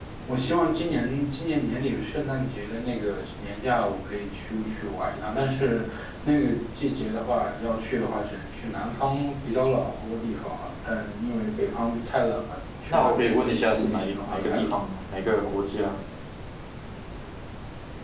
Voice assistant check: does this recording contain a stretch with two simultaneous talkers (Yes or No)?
Yes